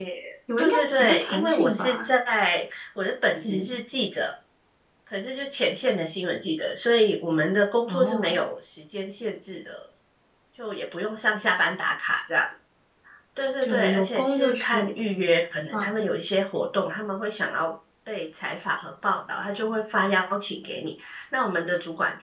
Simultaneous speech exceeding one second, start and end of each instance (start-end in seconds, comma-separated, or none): 0.6-2.1, 13.6-15.0